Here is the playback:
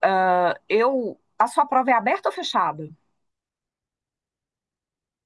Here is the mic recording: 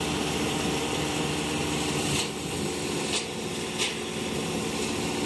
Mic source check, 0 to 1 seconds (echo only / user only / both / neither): neither